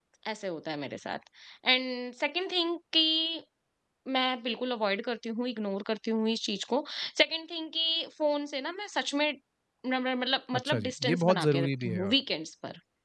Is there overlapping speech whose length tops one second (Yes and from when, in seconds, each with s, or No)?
Yes, from 10.5 s